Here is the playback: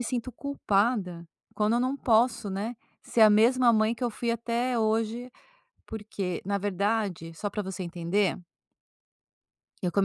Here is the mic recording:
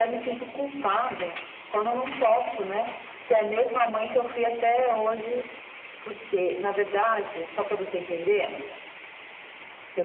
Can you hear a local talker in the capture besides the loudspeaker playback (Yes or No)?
No